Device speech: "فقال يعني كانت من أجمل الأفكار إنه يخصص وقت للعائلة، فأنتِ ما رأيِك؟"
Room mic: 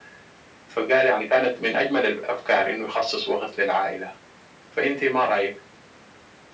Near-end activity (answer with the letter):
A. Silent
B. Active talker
A